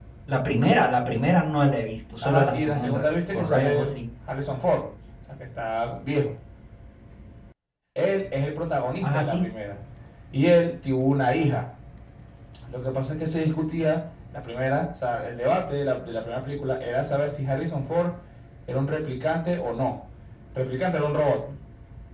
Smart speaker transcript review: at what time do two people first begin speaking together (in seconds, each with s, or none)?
2.2 s